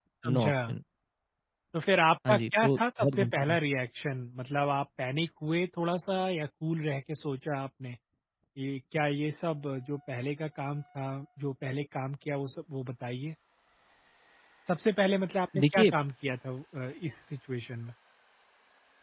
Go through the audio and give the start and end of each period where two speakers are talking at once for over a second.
2.3-3.6

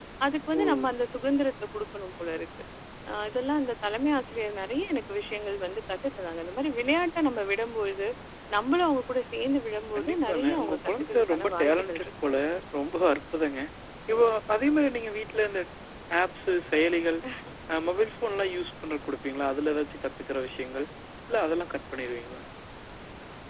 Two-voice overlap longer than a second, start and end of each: 9.9-12.1

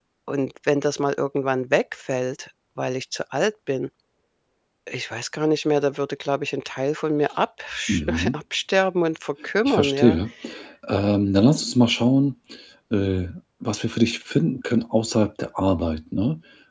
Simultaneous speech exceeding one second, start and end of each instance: none

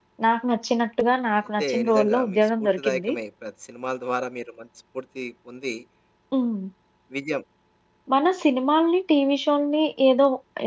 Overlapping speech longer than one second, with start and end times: 1.6-3.1

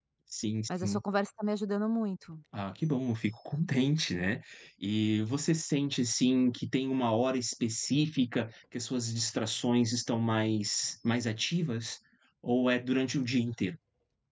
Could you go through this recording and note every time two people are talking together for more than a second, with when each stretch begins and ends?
none

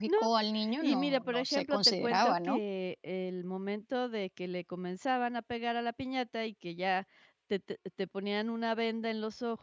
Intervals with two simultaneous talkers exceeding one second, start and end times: 0.8-2.6

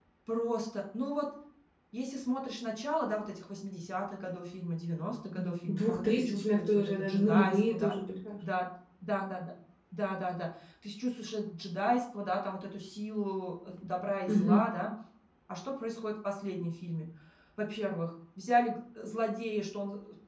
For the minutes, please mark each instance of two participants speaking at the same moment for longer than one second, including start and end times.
5.4-8.0

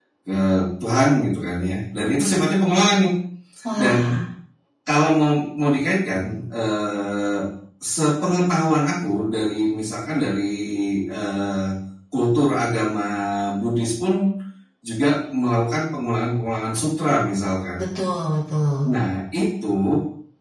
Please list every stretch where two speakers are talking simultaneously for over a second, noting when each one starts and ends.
none

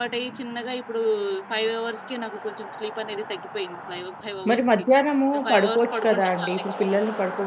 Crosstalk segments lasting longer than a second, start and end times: 5.3-6.6

